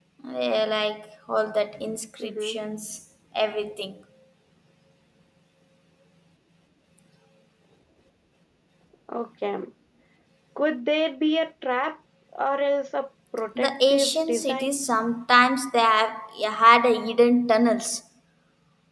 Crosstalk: present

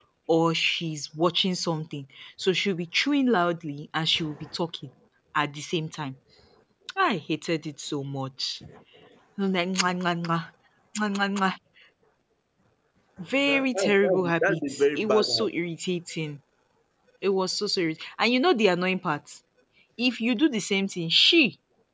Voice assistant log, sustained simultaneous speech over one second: present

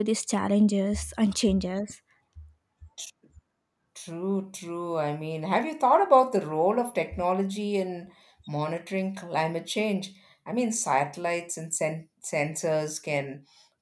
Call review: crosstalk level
none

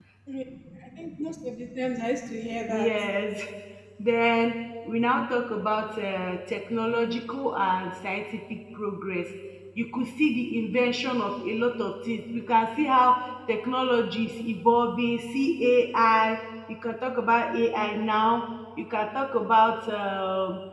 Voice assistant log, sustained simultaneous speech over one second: none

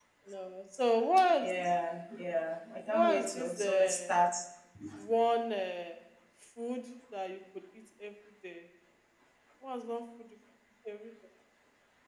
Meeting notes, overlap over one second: present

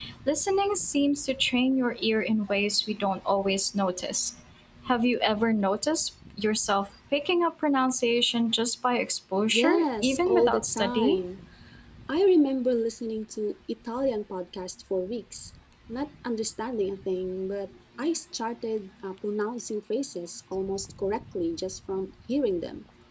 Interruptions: present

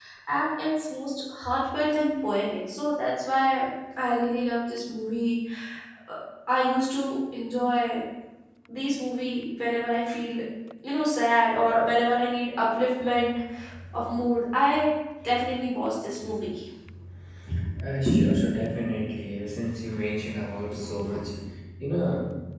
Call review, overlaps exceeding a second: none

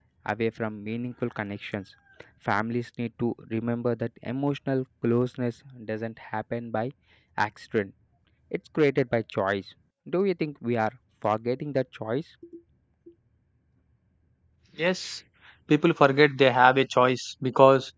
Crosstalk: none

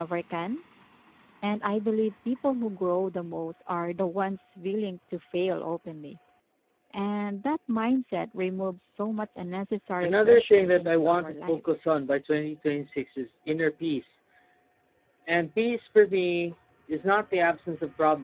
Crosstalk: present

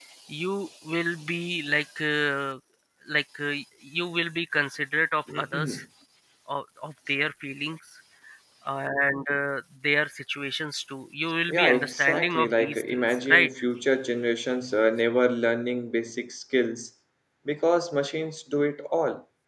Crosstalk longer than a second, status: present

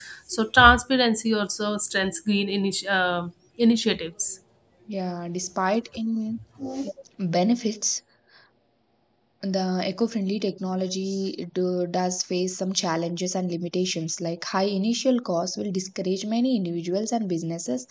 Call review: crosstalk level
none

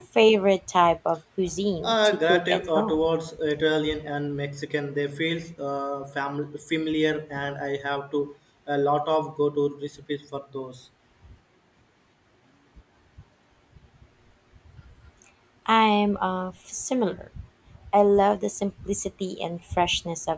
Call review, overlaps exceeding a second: present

